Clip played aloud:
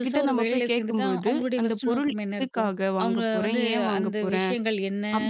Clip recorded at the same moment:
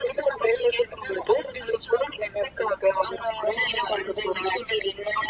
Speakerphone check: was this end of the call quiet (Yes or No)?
Yes